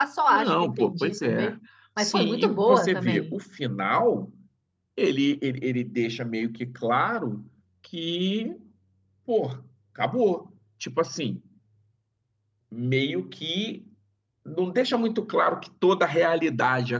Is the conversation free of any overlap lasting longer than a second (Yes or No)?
No